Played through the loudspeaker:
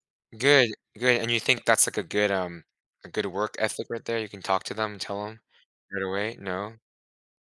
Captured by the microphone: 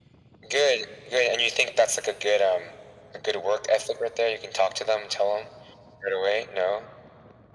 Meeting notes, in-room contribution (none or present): none